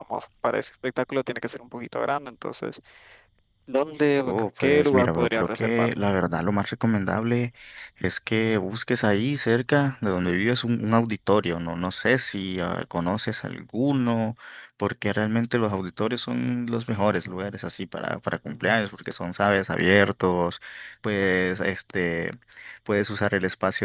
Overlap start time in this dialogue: 4.3 s

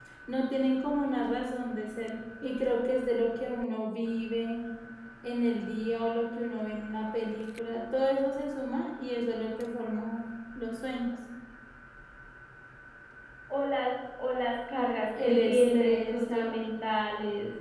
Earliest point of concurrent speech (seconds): 15.2 s

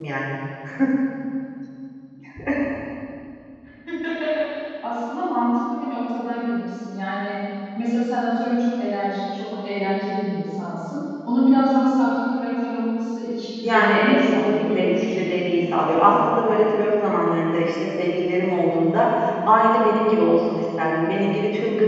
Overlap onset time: 13.6 s

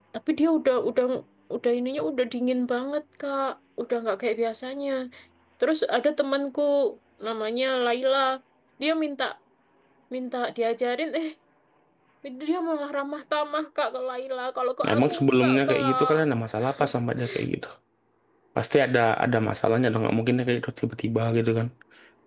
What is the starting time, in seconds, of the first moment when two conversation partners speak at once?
14.9 s

